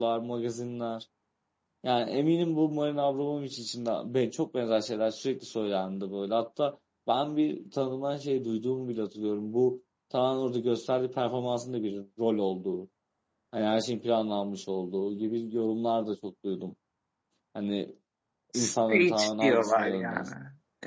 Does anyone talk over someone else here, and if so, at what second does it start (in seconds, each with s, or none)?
18.5 s